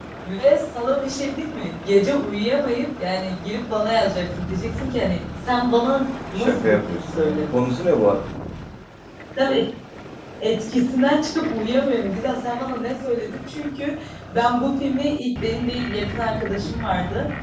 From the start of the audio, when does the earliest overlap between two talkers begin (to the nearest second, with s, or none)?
6 s